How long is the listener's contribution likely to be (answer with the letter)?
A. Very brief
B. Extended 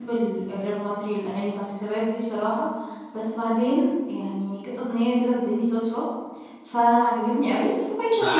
B